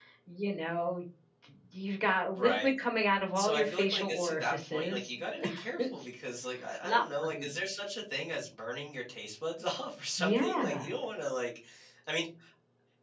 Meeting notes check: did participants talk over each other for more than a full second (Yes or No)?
Yes